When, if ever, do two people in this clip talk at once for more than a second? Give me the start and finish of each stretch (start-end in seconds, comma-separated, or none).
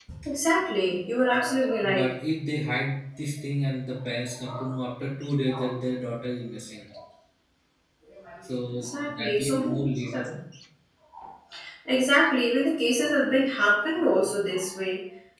8.8-10.2